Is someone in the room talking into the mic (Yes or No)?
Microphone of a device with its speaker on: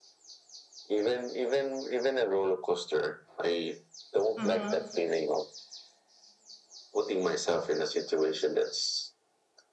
Yes